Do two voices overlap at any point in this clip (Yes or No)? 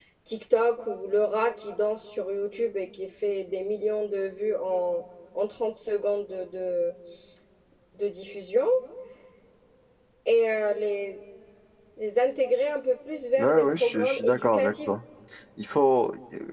Yes